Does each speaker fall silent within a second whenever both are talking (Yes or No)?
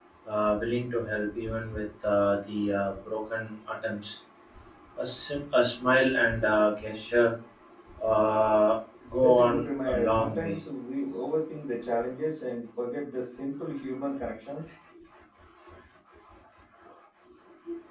No